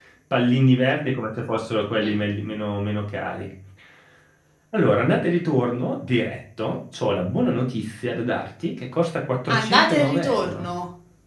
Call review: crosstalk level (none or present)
present